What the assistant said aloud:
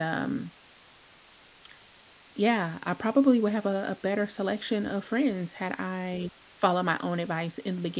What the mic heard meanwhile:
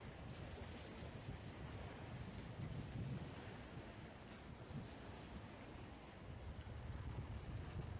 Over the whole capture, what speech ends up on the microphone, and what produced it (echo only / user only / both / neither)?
neither